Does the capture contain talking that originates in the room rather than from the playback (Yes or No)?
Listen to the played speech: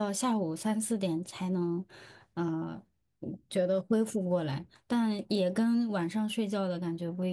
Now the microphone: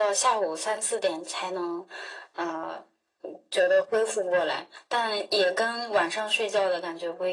No